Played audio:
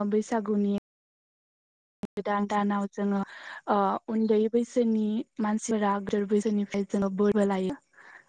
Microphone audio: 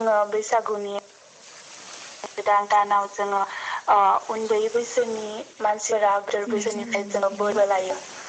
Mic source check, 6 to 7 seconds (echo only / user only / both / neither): both